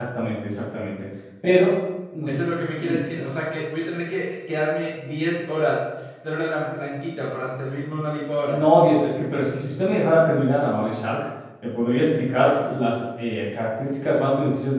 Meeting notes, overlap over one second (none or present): none